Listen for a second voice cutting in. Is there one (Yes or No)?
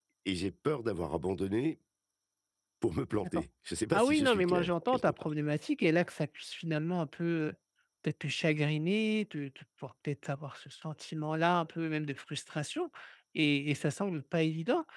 Yes